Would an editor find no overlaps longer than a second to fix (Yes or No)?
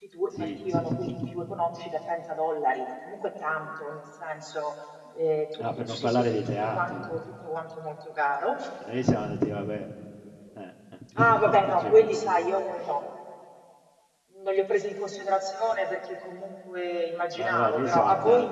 No